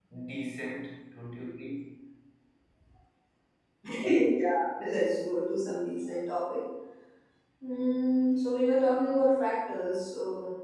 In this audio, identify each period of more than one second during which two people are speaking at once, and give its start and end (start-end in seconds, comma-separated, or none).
none